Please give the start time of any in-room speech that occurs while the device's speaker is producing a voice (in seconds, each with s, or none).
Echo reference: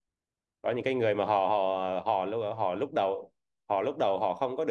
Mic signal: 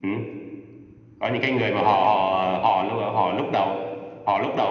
none